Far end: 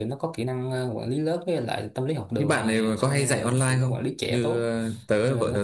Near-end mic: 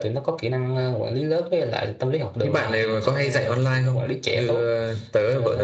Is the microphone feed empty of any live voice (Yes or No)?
Yes